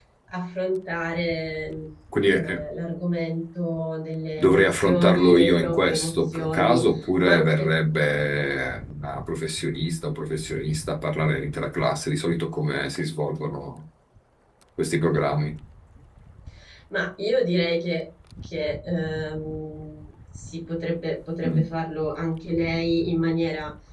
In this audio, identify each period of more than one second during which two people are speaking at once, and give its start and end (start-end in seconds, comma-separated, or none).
4.4-6.8